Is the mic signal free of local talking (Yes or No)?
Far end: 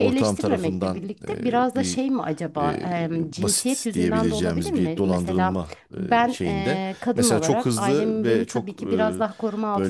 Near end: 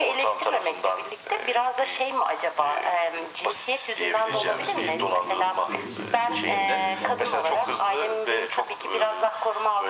No